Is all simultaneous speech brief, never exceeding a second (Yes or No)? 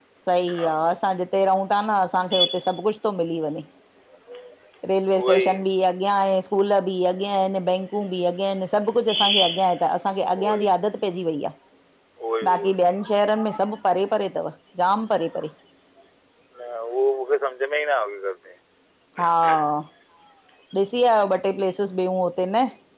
Yes